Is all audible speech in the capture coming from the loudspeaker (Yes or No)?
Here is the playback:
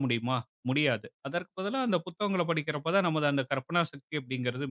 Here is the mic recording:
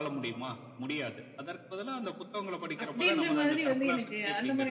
No